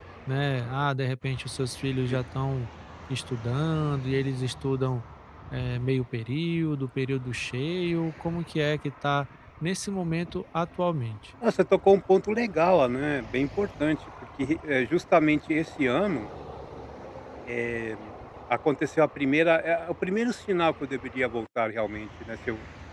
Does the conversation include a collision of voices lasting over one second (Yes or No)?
No